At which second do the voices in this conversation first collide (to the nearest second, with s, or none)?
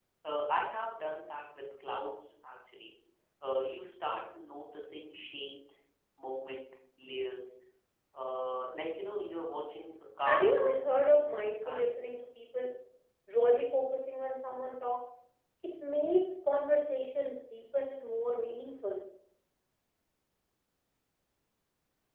10 s